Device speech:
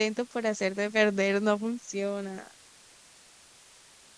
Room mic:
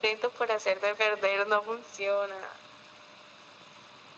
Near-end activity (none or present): none